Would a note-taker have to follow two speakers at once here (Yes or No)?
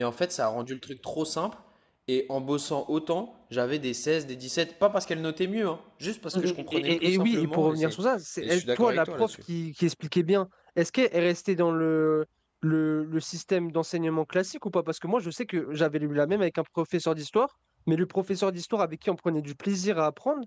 Yes